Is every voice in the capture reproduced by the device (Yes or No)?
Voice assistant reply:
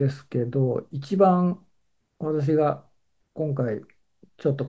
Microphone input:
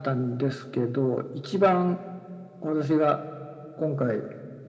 Yes